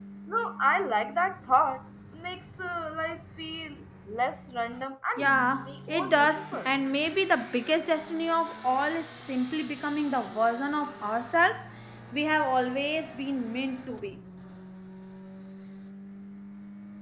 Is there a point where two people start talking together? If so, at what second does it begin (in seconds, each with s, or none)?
5.2 s